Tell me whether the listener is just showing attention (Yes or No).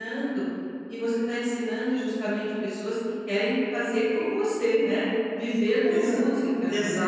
No